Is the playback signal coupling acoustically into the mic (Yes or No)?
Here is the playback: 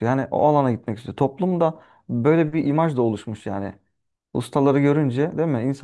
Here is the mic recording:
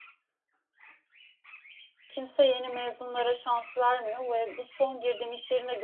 No